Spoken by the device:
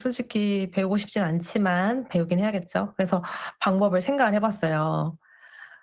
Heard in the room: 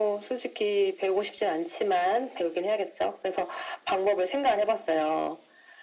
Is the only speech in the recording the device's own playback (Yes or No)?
Yes